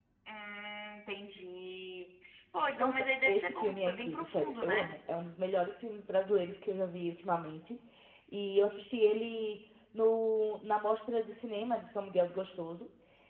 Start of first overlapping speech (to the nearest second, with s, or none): 3 s